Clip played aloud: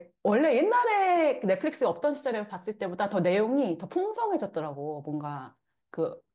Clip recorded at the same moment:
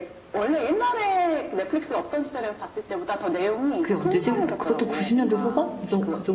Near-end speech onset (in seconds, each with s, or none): 3.8 s